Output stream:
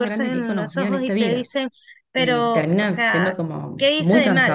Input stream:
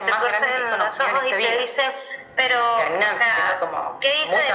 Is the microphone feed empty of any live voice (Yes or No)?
Yes